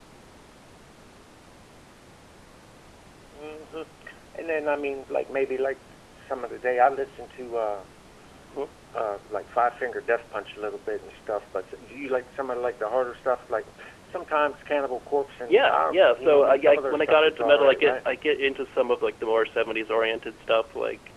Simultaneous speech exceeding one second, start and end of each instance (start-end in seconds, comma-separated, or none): 15.5-17.9